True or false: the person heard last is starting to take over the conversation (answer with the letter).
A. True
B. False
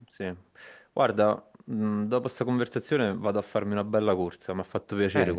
A